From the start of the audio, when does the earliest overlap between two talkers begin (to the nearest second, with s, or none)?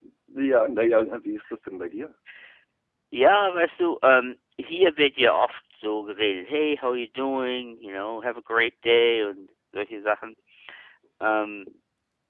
none